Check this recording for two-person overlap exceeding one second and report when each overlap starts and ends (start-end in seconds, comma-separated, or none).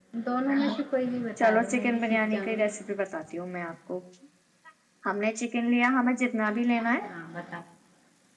1.4-2.7